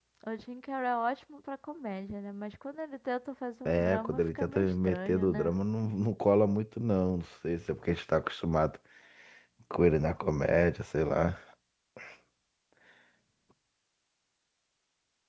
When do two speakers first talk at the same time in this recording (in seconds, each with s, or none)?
3.6 s